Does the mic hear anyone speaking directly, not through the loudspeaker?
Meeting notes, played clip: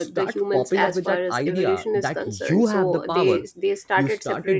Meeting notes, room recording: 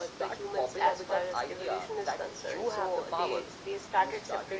No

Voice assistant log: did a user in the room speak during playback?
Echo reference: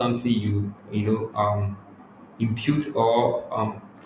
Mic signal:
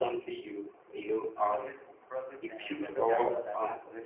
Yes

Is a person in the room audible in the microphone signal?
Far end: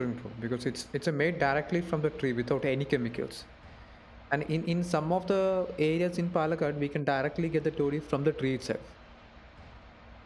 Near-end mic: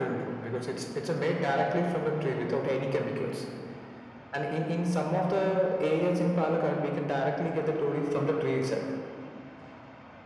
No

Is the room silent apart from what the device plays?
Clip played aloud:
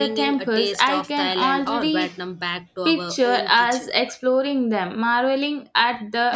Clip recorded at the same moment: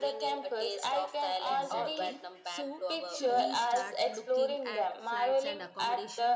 No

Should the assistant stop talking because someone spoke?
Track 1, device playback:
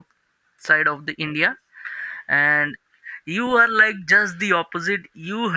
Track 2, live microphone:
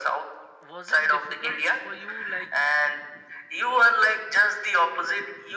Yes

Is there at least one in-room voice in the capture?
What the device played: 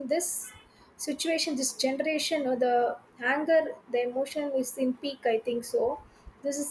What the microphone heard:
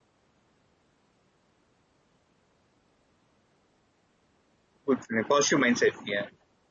Yes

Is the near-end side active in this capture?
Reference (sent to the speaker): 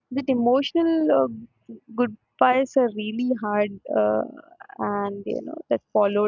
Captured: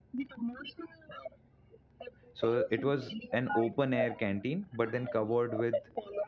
Yes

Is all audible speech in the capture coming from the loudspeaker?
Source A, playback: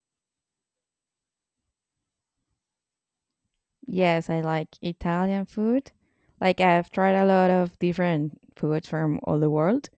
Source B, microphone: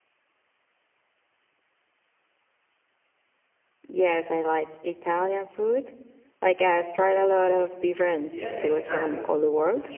No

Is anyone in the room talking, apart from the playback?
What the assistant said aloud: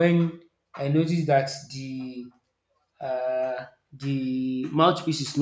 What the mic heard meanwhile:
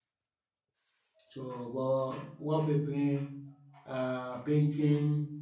Yes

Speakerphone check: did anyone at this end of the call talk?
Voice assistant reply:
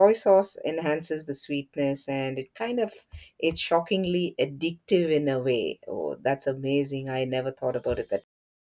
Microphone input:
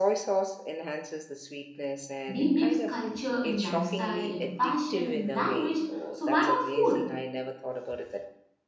Yes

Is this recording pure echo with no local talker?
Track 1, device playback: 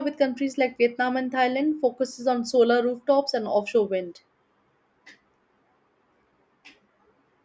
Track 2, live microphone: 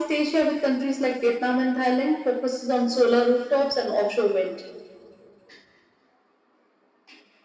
Yes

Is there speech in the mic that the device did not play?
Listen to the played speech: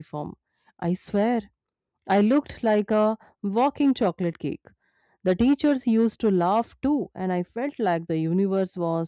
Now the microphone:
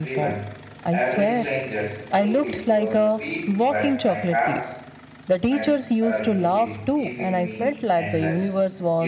Yes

